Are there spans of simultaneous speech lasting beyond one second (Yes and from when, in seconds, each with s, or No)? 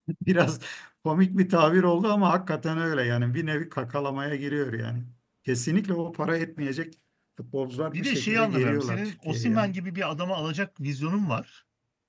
Yes, from 7.9 s